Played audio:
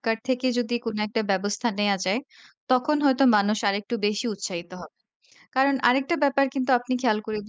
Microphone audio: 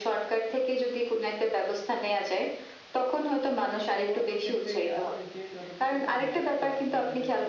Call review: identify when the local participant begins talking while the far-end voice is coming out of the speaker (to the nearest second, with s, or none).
4 s